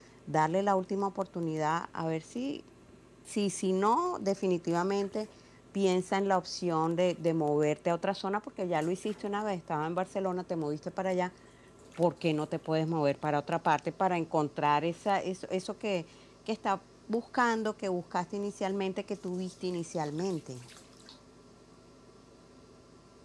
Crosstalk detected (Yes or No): No